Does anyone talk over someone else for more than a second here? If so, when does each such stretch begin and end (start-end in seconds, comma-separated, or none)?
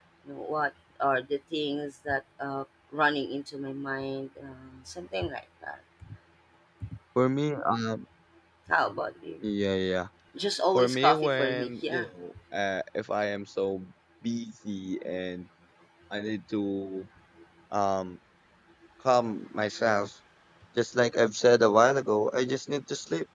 10.8-12.1